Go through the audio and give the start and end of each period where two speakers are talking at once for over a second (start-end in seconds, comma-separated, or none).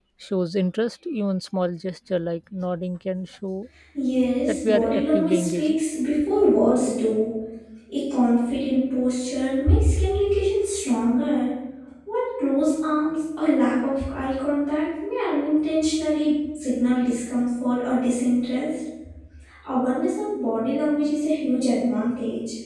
4.5-5.8